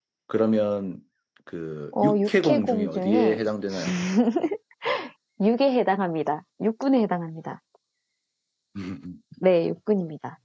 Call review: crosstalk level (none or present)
present